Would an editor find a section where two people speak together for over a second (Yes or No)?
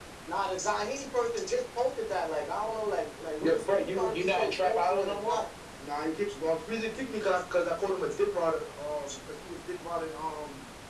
Yes